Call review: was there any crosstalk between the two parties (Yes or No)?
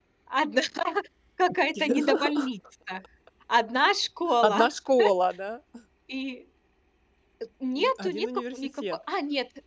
Yes